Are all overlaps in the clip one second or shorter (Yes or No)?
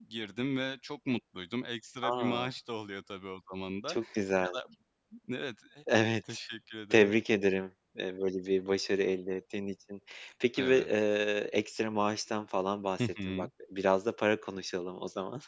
Yes